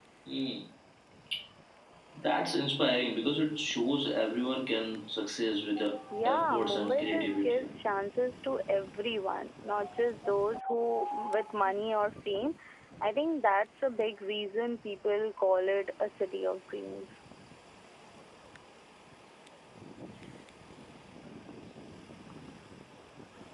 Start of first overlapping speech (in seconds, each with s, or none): 6.2 s